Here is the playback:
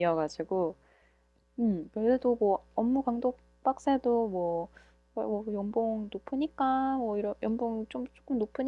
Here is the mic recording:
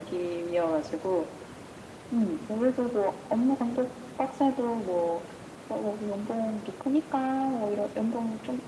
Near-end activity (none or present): none